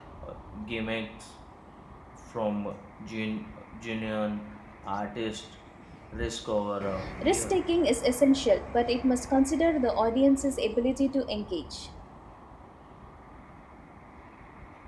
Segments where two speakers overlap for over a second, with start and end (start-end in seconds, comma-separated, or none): none